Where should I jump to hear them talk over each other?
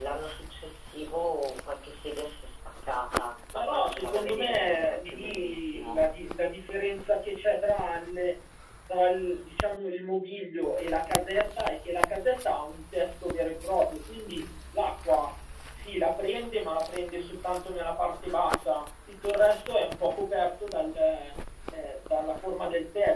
3.5 s

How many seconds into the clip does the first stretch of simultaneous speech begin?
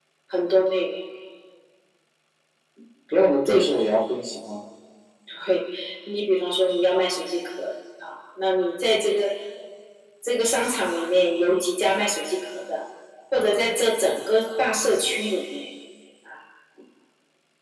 none

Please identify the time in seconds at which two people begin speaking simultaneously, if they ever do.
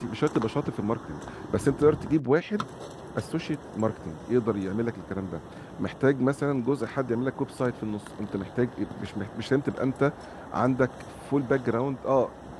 none

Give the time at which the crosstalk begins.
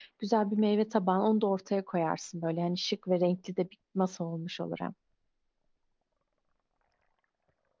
none

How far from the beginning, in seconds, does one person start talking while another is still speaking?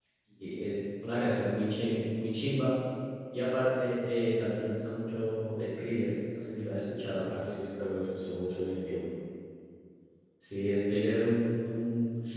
none

